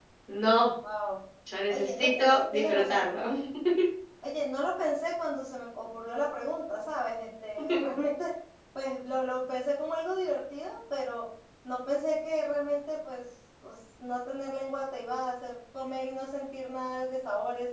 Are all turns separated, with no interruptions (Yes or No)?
No